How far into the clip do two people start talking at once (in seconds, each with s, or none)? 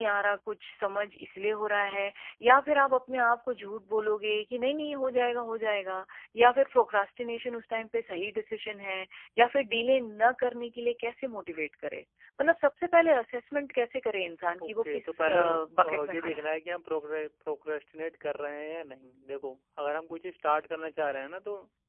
14.6 s